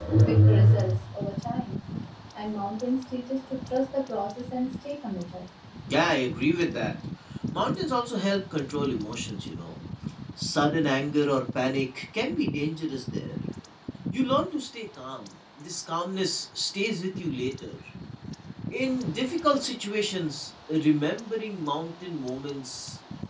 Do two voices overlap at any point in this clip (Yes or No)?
No